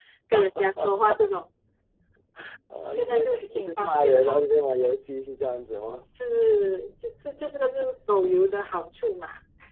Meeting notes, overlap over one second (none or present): present